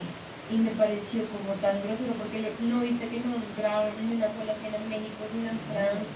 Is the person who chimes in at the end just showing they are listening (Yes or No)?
No